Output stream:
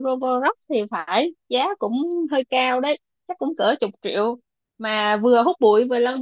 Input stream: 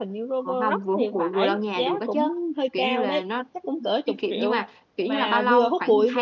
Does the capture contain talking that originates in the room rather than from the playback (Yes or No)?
Yes